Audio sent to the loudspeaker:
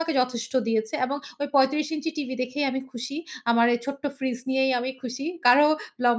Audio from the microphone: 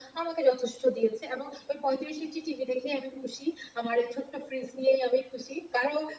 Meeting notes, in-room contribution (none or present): none